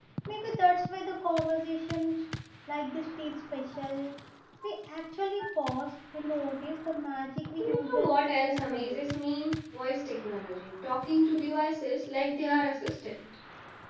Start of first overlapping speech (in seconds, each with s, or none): 7.6 s